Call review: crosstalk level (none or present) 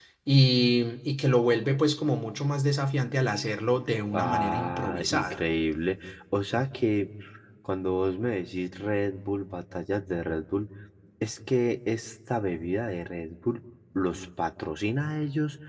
present